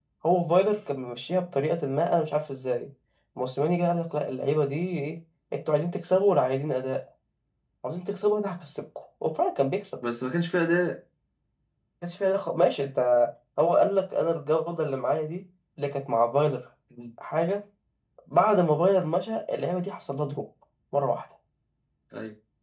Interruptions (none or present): none